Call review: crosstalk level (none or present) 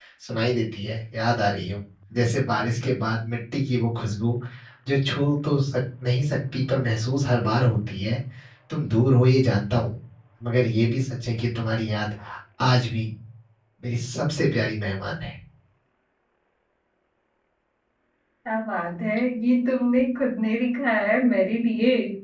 none